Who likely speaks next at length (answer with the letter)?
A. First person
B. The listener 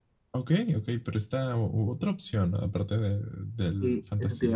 B